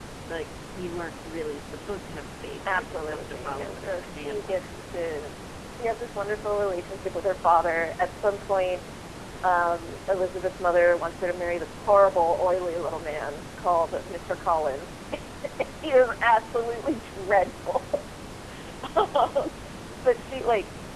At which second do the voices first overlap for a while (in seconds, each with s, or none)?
2.6 s